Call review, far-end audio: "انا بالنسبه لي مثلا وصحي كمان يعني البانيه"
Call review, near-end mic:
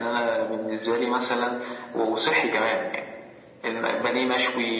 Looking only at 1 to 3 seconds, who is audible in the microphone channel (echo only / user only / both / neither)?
echo only